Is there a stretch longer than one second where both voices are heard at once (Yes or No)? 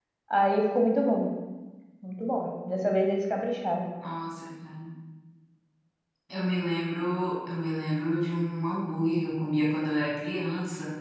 No